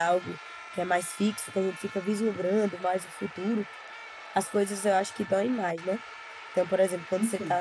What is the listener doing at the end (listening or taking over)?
listening